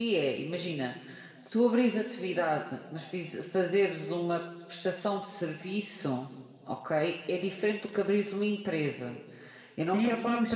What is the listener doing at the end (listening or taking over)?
taking over